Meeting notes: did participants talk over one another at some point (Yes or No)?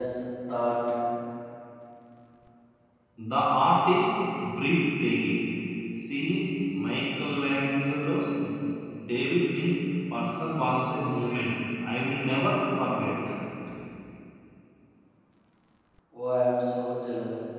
No